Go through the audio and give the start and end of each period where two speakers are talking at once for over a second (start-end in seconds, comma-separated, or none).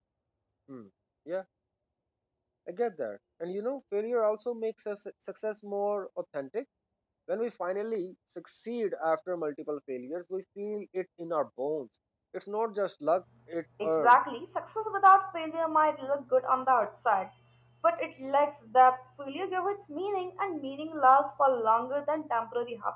none